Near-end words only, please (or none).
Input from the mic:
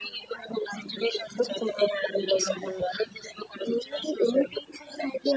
తీసుకుంటారు.